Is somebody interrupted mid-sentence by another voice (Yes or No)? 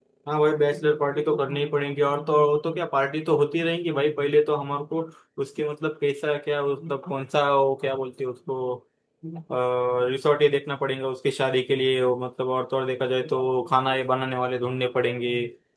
No